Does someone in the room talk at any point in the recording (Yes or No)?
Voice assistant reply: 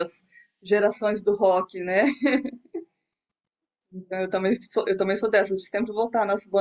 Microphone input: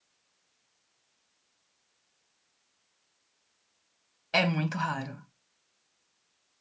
Yes